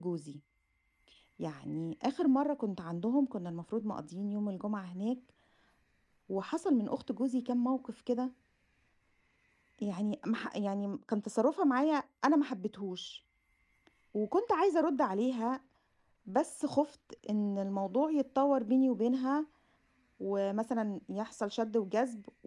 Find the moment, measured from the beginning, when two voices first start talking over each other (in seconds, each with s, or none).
none